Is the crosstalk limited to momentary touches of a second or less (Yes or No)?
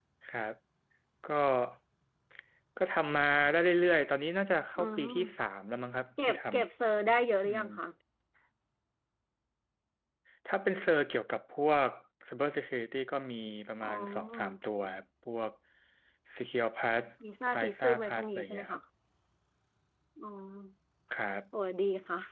No